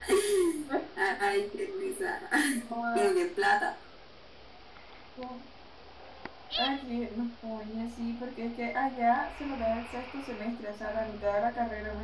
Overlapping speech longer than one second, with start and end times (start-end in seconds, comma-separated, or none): none